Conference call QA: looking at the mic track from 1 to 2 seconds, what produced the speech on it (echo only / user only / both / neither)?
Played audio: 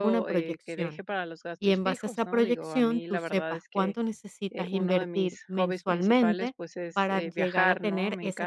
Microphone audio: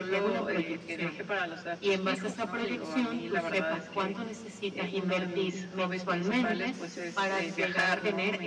echo only